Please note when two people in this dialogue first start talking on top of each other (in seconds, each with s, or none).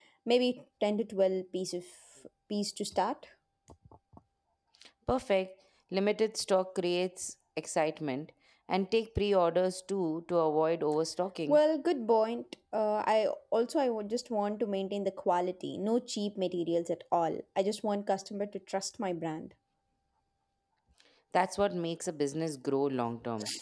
none